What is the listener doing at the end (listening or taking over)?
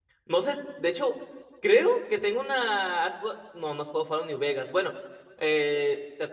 listening